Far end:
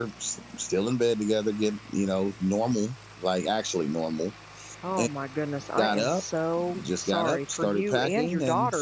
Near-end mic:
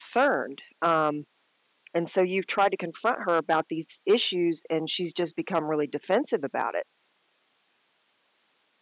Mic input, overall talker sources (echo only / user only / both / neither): user only